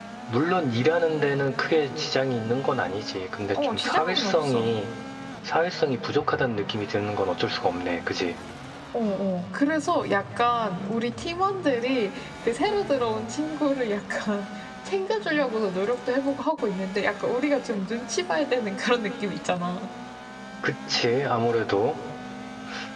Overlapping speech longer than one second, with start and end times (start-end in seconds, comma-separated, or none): 3.5-4.8